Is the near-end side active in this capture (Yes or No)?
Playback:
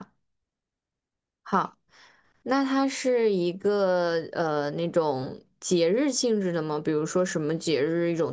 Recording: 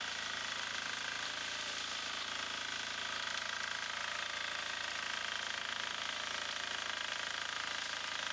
No